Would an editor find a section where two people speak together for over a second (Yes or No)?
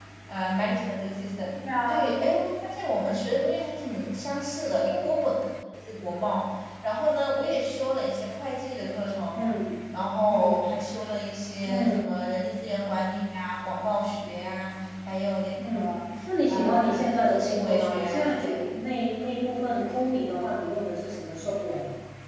Yes